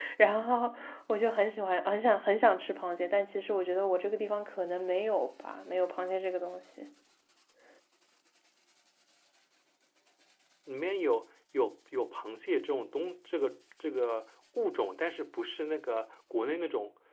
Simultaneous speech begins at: none

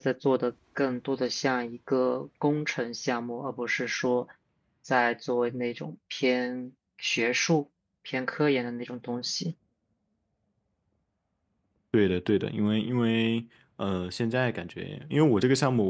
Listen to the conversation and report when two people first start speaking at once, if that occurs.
none

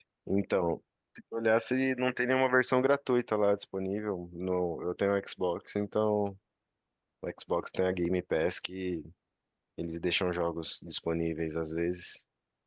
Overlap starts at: none

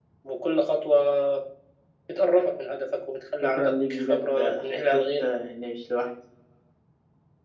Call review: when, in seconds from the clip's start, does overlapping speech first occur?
3 s

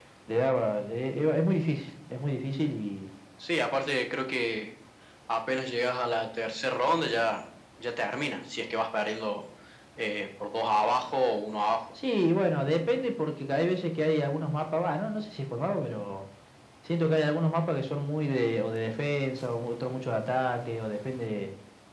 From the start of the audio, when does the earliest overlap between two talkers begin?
none

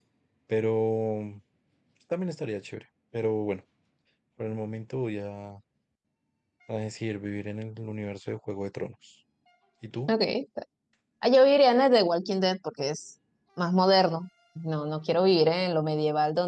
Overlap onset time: none

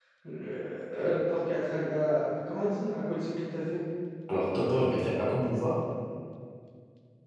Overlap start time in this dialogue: none

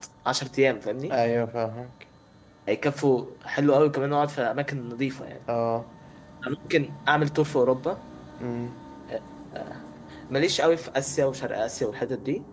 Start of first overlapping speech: none

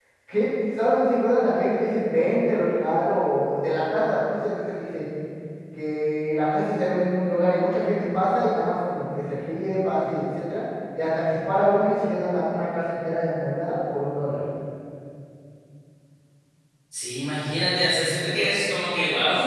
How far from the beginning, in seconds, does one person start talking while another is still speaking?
none

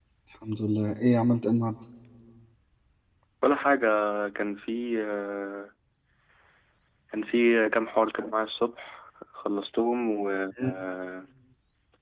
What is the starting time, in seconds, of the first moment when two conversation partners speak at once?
none

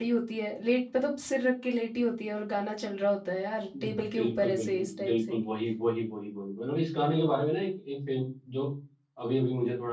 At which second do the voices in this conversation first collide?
4 s

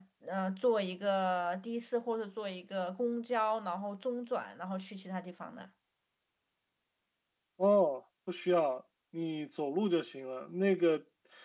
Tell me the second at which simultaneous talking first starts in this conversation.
none

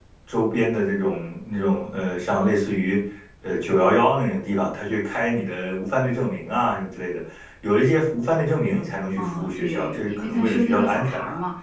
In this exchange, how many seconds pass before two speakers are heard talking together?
9 s

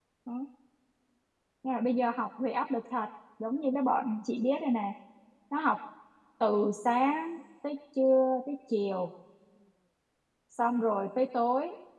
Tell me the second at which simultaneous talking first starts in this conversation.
none

